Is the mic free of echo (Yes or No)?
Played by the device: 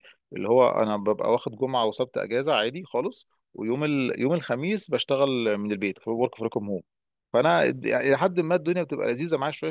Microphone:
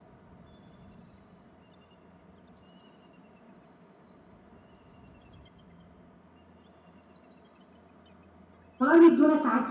Yes